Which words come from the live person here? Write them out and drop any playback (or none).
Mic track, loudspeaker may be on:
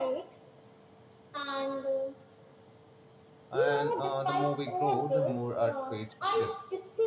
And uh, the more we grow, the more our traits shift.